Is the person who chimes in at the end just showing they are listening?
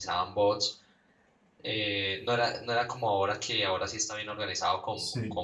Yes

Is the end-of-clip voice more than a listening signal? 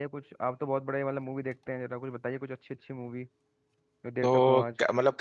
Yes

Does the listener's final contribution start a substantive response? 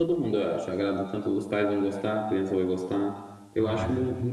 No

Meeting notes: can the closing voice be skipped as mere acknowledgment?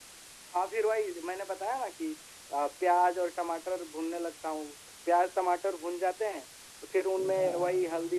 Yes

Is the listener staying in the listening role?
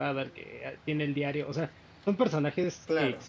Yes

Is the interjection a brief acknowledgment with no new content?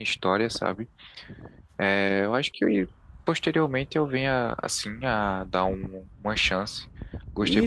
No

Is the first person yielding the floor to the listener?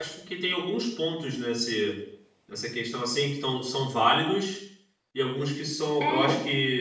No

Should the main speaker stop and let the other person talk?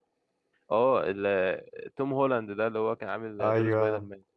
Yes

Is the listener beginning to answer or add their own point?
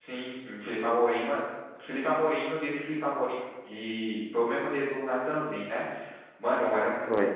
No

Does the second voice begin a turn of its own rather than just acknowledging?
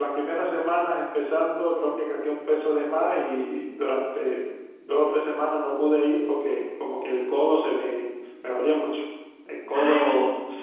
No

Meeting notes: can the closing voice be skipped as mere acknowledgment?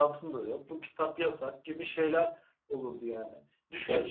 Yes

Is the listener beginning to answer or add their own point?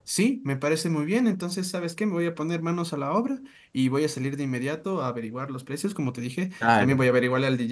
No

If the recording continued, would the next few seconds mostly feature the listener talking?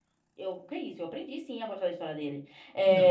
No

